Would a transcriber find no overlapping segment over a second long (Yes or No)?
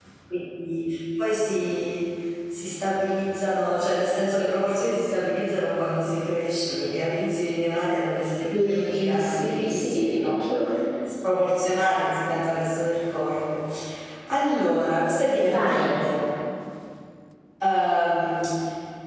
No